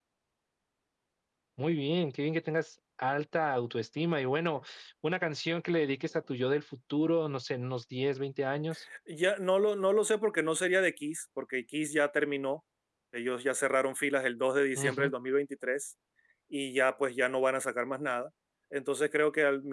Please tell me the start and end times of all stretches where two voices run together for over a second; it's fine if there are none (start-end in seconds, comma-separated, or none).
none